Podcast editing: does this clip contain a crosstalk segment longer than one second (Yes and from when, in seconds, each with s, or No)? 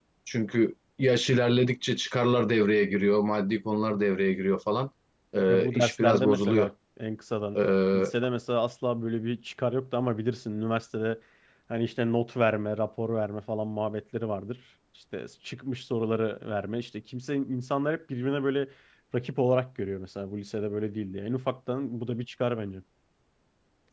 Yes, from 5.5 s